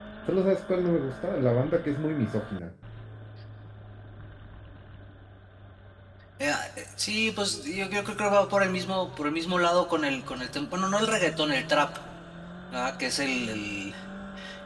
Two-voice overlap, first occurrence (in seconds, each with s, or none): none